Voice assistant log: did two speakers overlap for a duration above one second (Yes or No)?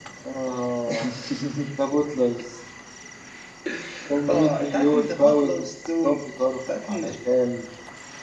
Yes